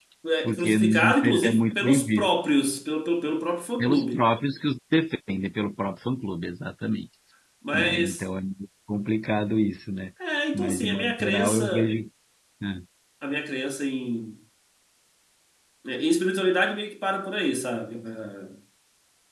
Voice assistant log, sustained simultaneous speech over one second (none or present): present